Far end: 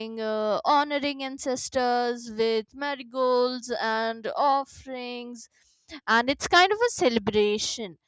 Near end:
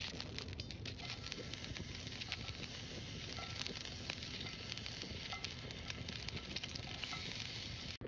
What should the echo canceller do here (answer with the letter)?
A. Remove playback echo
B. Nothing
B